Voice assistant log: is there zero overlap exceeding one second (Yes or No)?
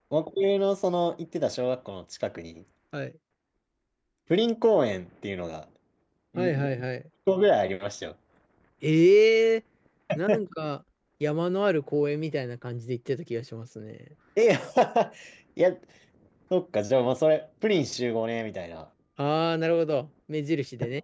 Yes